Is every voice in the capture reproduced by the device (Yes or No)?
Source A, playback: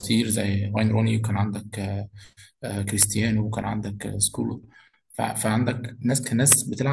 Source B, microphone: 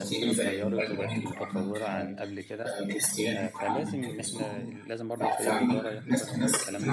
No